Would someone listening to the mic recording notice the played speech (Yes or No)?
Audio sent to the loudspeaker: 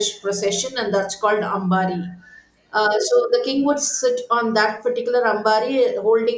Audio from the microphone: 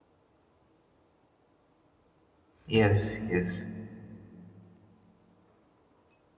No